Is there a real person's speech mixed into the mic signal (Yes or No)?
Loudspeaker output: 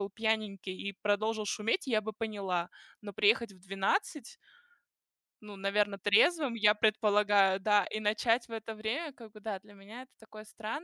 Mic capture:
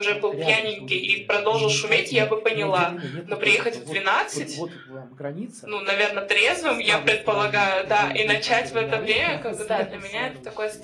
Yes